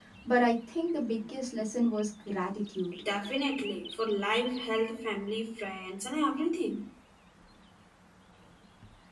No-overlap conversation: Yes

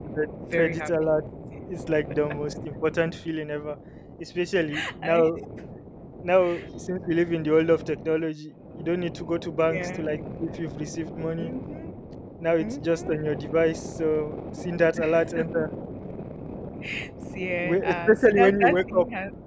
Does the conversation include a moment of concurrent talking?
Yes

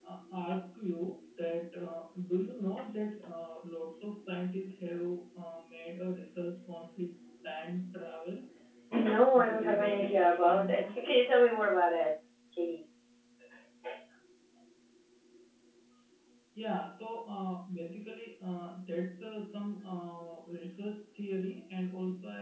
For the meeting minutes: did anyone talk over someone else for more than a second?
Yes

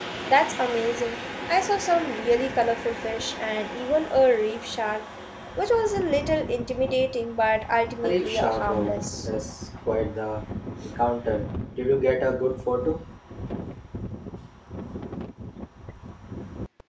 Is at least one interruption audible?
Yes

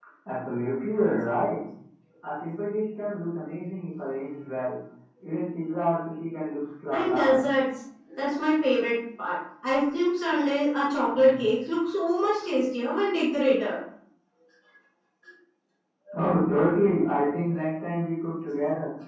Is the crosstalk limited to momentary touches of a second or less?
Yes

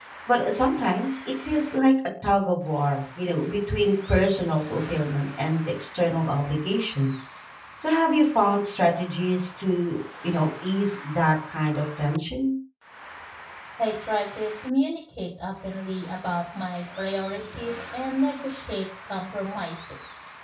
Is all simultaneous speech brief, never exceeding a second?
Yes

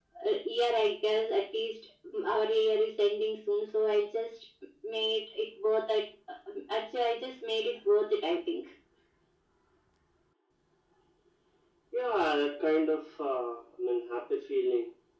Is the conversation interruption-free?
Yes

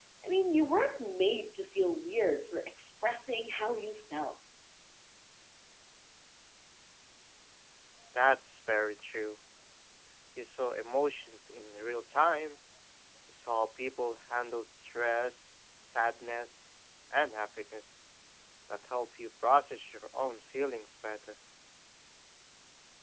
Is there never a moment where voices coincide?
Yes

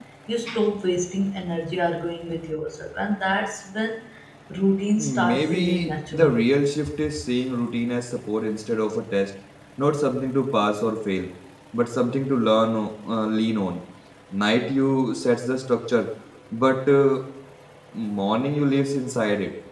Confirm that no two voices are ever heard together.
No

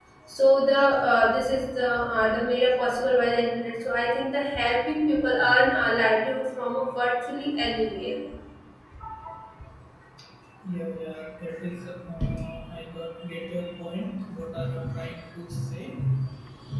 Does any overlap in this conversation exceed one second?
No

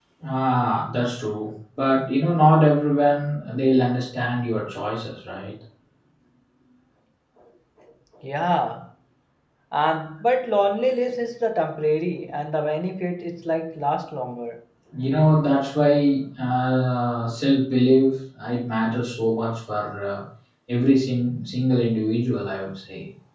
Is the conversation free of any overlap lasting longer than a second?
Yes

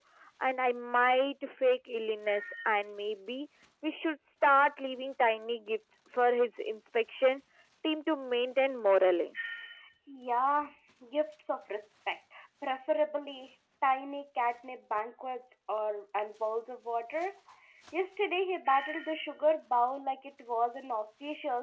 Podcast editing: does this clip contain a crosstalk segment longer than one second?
No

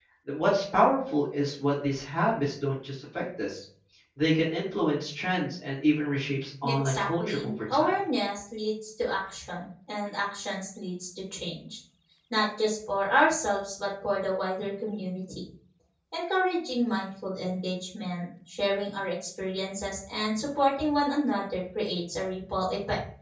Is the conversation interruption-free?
No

